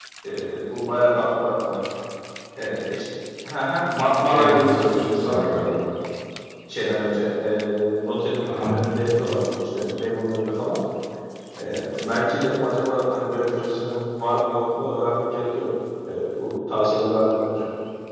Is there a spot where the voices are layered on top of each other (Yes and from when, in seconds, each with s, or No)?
Yes, from 4.3 s